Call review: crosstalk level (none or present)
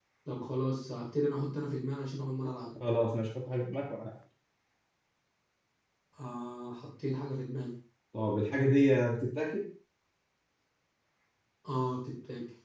none